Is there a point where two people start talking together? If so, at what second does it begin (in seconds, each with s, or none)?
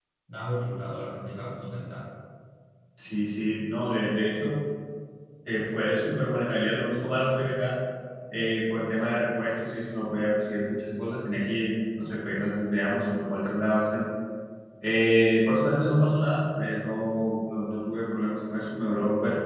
none